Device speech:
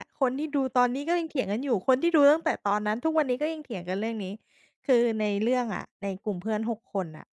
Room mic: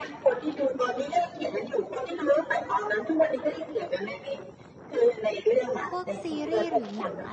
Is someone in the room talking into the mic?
Yes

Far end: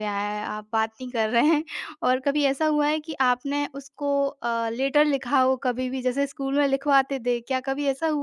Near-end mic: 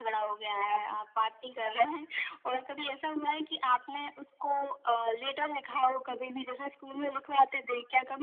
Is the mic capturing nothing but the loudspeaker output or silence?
Yes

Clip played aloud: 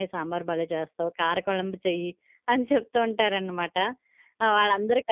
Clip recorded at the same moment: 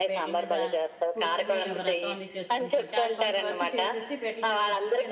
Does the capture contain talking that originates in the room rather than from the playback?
Yes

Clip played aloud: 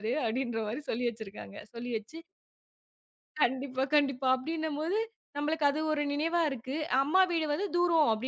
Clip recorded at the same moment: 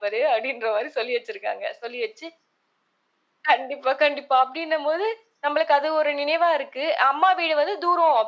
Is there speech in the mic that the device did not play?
No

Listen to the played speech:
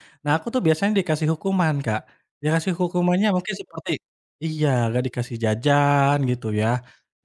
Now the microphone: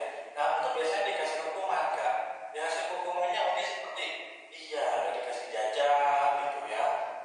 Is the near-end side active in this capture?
No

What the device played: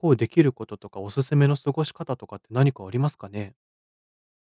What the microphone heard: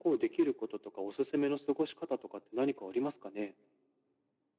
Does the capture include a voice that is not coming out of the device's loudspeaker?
No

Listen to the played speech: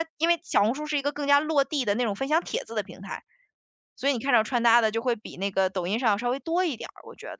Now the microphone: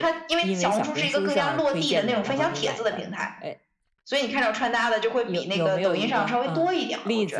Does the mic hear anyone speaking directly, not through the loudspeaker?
Yes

